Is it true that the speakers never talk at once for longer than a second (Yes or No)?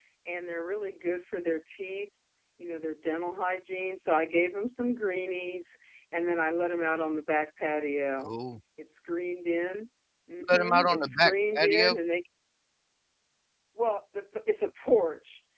No